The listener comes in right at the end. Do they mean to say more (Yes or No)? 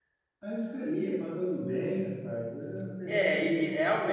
Yes